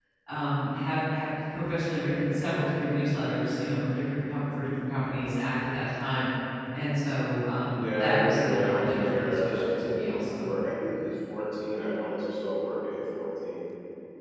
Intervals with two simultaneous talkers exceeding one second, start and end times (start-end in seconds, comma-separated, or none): 7.7-10.5